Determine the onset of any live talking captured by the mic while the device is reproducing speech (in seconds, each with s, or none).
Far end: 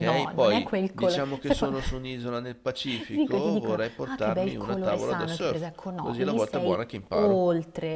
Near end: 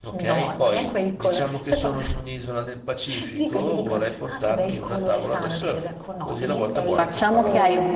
6.9 s